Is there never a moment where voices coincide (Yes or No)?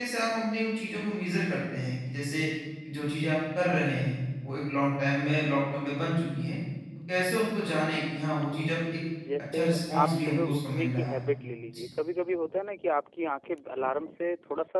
No